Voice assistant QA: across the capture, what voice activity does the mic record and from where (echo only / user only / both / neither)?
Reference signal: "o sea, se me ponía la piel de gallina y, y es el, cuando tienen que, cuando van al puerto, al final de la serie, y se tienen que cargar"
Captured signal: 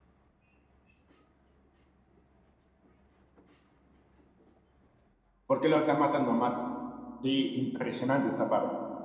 user only